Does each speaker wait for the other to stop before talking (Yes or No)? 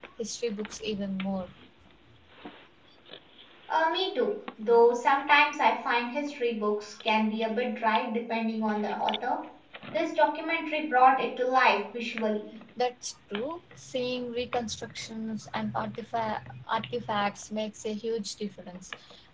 Yes